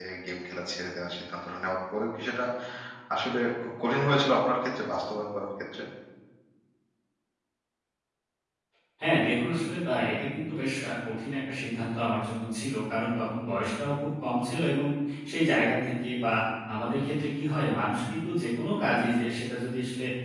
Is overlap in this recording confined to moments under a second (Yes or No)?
Yes